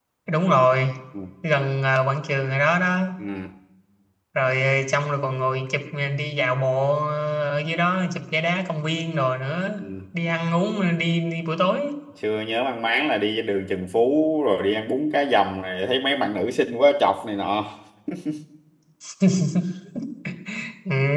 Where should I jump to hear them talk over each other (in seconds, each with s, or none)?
none